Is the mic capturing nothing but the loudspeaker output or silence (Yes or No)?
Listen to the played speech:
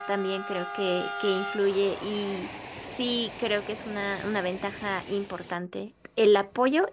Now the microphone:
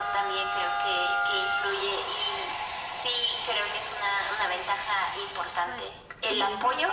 No